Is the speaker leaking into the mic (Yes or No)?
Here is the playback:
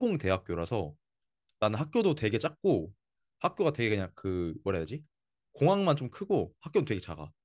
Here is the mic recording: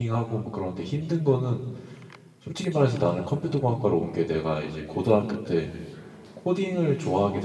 No